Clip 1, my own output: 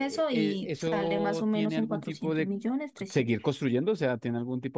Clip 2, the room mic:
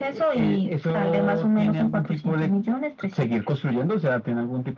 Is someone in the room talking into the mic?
No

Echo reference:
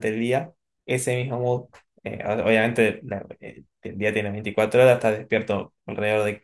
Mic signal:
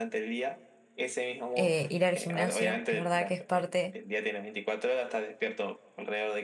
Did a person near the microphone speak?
Yes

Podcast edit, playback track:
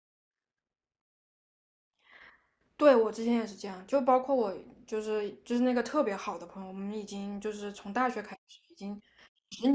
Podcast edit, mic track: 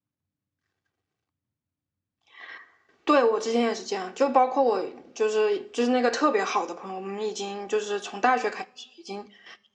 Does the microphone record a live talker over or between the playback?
No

